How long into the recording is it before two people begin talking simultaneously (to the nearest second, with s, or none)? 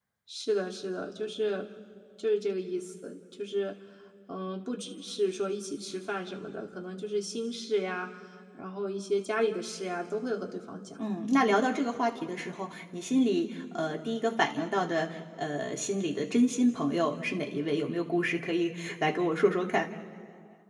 none